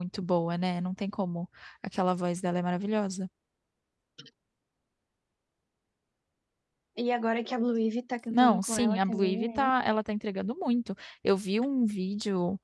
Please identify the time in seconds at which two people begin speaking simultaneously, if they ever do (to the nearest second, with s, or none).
8 s